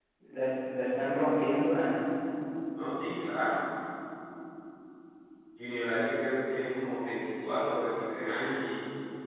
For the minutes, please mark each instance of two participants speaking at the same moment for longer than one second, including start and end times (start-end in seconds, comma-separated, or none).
none